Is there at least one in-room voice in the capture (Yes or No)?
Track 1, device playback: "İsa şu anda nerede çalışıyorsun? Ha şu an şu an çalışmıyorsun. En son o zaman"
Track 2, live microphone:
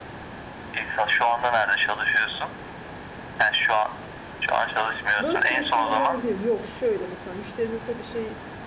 Yes